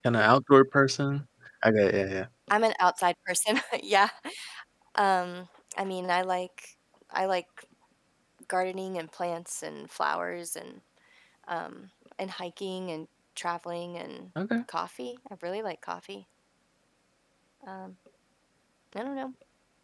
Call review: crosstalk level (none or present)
none